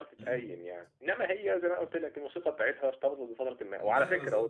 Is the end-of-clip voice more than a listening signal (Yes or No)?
No